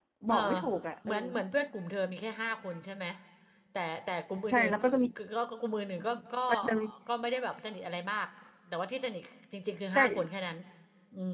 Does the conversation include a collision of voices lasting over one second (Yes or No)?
No